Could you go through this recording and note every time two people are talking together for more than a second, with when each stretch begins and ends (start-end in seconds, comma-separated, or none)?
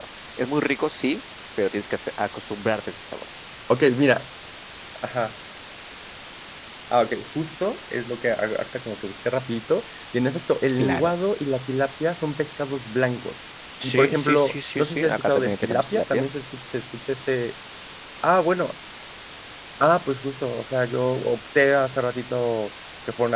13.8-16.3